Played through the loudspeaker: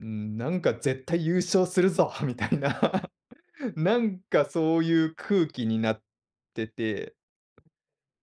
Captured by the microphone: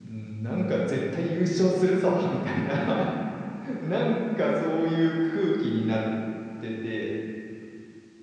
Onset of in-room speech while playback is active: none

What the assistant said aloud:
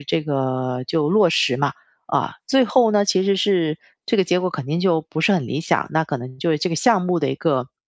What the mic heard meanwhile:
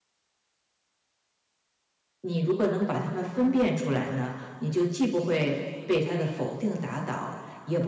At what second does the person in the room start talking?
2.2 s

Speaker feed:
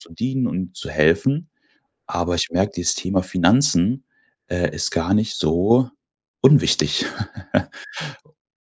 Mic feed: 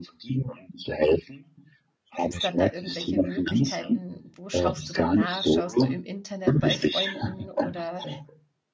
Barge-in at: 2.2 s

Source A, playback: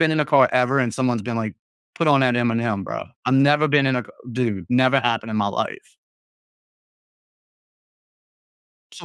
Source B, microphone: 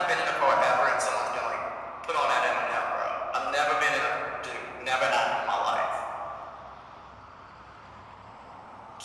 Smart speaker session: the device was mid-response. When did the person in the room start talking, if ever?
none

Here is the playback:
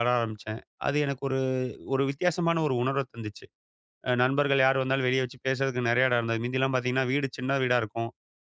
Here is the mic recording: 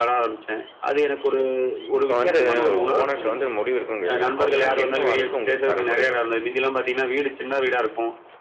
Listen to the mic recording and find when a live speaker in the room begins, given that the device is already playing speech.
1.2 s

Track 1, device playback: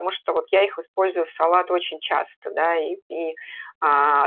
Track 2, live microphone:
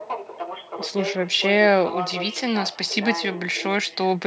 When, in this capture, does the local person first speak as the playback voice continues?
0.8 s

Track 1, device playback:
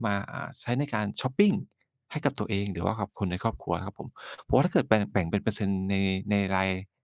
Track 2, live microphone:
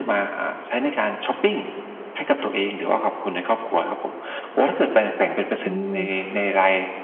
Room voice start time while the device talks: 5.6 s

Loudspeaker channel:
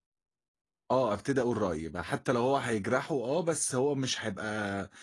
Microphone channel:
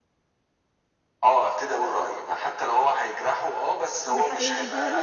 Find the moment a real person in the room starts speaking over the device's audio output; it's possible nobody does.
4.1 s

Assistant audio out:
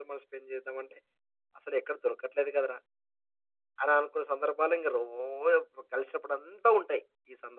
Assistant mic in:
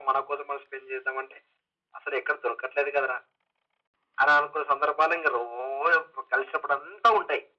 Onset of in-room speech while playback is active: none

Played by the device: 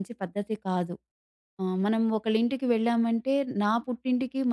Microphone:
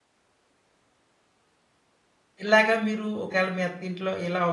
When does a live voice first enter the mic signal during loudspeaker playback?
2.4 s

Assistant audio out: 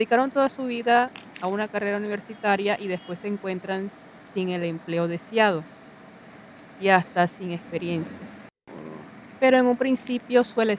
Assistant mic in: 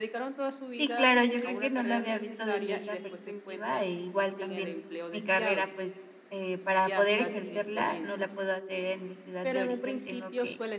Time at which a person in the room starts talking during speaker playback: 0.8 s

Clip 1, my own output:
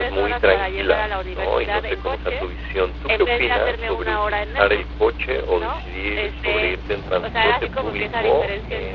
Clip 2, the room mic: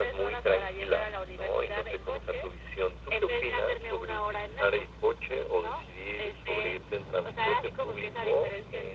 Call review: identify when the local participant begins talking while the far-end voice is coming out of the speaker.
none

